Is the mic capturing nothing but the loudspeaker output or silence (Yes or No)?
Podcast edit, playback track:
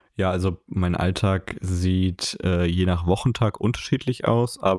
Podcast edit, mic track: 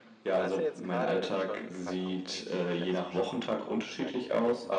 No